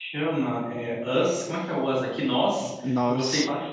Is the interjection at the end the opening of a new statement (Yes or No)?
No